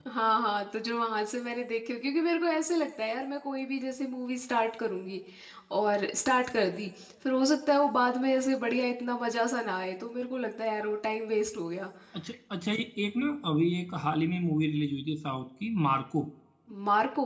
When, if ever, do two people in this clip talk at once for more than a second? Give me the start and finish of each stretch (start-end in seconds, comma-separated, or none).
none